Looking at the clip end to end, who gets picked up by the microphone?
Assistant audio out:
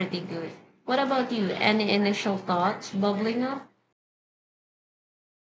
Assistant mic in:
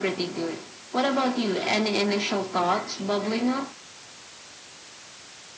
echo only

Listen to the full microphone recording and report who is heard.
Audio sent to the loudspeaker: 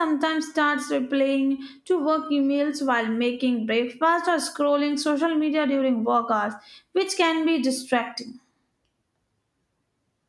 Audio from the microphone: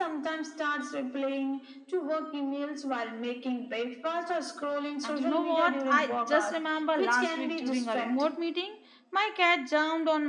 both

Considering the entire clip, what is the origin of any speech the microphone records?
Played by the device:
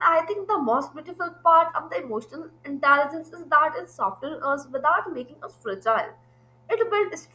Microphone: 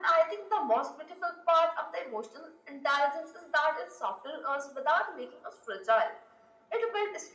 echo only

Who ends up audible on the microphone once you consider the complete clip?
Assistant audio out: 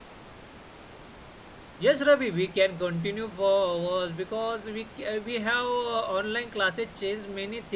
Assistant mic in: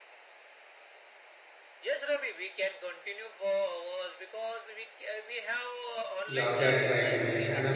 both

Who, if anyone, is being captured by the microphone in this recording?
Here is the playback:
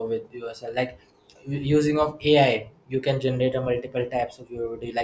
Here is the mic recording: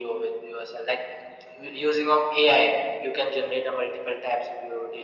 echo only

